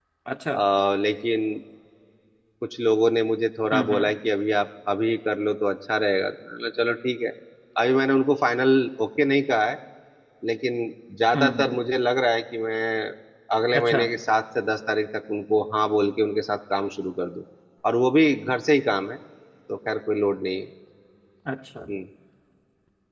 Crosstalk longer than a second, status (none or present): none